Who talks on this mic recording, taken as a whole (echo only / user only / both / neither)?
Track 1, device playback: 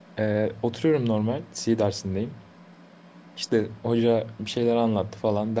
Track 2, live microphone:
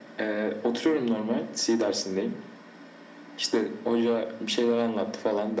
echo only